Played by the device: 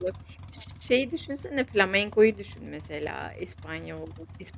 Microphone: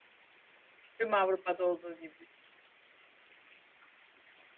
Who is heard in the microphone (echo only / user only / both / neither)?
user only